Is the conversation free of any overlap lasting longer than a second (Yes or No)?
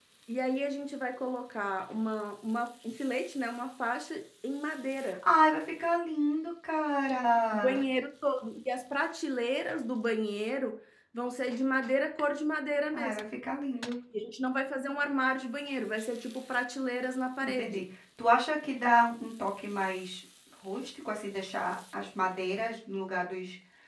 Yes